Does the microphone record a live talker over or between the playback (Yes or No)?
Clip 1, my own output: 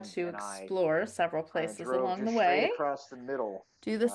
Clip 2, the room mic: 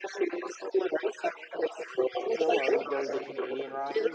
Yes